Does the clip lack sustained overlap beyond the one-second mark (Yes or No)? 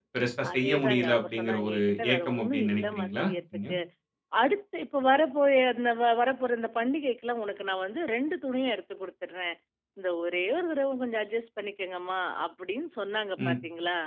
No